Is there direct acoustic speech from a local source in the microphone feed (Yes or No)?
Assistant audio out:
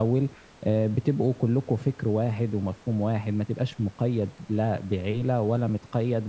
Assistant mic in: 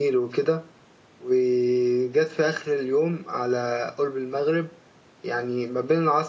Yes